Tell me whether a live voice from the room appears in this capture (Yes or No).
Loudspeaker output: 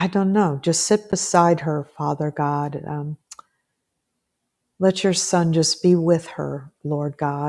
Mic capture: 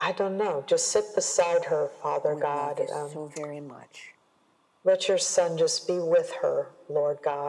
Yes